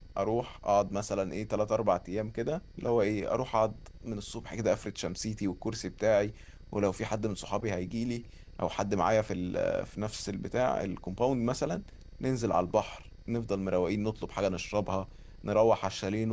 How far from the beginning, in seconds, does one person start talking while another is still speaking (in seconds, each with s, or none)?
none